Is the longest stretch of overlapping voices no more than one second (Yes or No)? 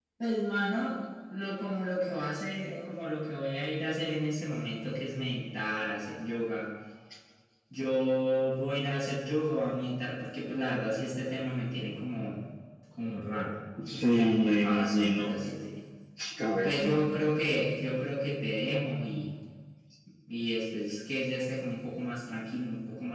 No